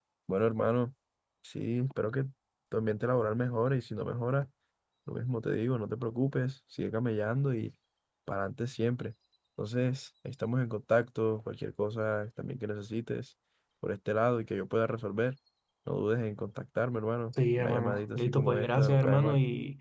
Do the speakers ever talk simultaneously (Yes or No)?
Yes